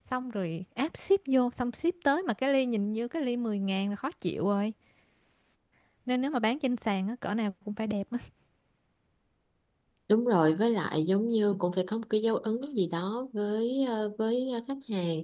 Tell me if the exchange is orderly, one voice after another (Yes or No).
Yes